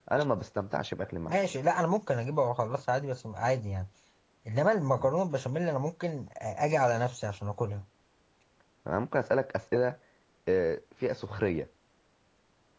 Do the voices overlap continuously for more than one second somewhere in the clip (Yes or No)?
No